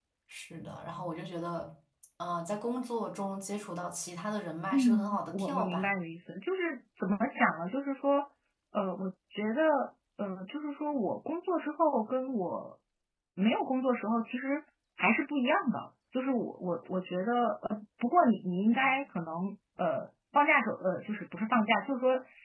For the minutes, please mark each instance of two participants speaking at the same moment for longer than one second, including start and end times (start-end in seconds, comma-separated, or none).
4.7-5.9